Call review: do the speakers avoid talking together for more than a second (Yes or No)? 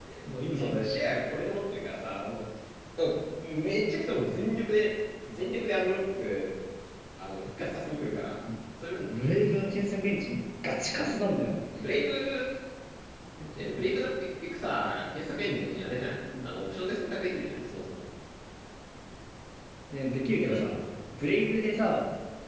Yes